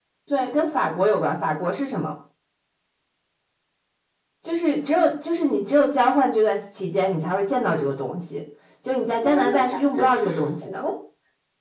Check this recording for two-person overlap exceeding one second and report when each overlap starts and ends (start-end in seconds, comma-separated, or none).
9.2-10.8